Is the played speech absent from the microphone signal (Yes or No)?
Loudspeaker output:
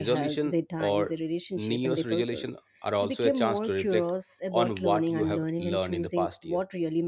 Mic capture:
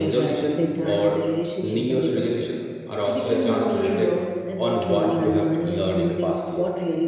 No